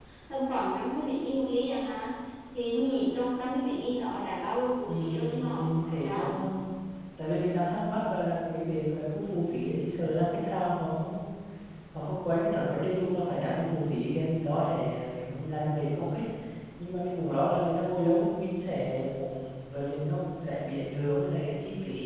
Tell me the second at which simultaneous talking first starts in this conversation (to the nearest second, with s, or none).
5 s